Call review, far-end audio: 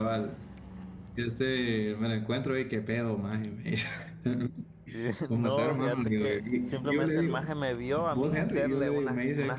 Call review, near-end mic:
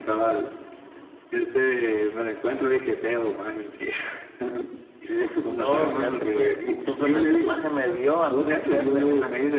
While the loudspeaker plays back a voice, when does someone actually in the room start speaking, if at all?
none

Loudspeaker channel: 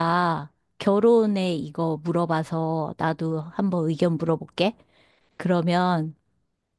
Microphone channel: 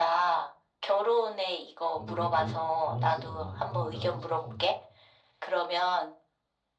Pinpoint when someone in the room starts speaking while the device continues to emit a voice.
2 s

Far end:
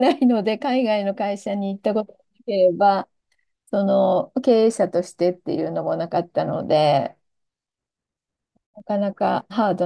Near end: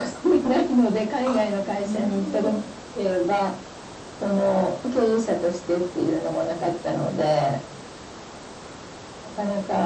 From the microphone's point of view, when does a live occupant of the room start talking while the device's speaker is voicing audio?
1 s

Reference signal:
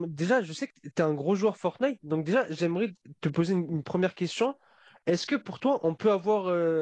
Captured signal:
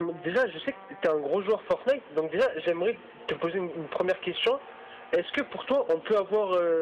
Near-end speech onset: none

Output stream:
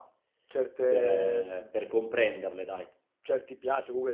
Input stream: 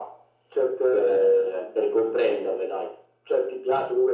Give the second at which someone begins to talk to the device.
none

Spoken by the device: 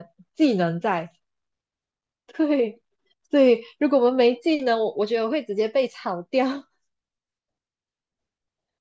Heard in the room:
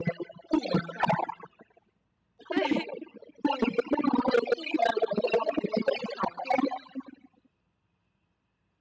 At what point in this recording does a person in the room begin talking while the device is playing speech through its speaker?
2 s

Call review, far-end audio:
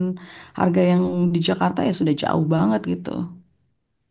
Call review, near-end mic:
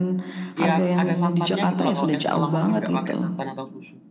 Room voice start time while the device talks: 1 s

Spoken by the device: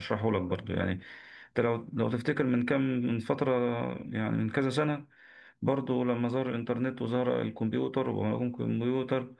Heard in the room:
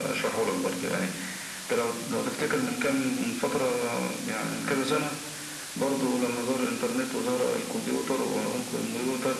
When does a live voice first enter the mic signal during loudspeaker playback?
none

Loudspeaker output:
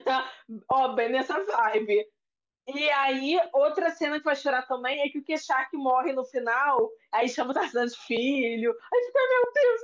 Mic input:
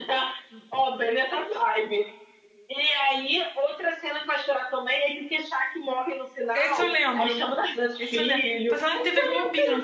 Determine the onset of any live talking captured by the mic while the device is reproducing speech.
7 s

